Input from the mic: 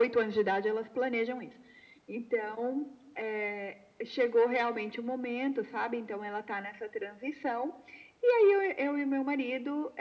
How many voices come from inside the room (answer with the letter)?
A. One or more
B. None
B